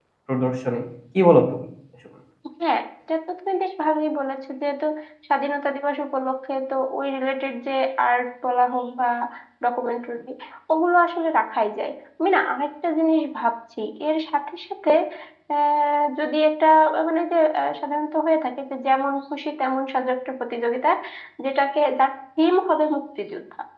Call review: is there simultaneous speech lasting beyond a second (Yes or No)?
No